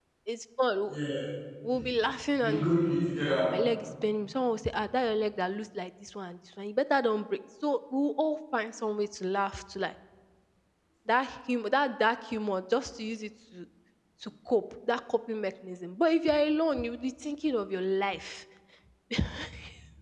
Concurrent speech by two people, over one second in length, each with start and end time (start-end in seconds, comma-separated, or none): none